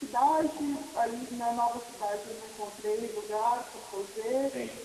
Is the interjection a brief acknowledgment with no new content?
Yes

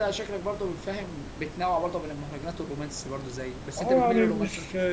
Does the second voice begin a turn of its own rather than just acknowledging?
Yes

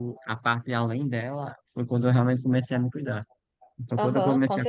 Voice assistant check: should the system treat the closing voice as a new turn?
Yes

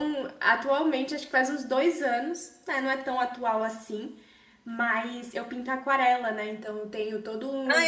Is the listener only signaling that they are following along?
No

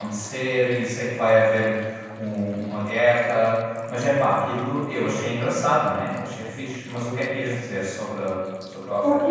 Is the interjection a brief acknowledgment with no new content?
No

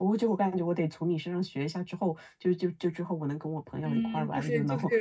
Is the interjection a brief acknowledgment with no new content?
No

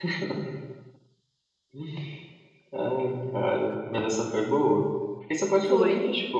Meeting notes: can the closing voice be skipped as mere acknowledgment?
Yes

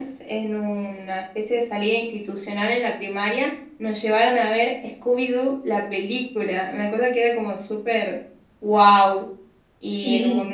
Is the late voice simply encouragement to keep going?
No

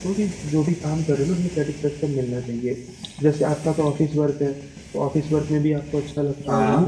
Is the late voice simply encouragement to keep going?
Yes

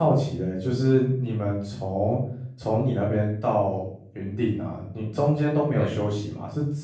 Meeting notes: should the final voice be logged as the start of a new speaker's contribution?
No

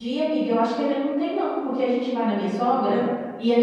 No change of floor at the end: Yes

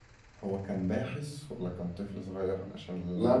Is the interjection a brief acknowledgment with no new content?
No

